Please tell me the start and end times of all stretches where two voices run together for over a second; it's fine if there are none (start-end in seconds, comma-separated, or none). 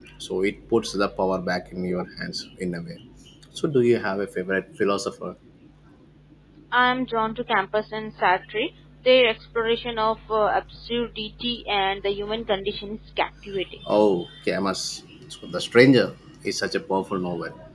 none